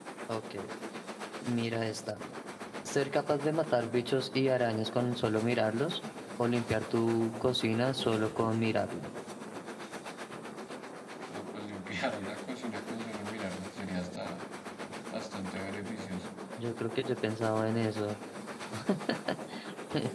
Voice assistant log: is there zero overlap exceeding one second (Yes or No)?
Yes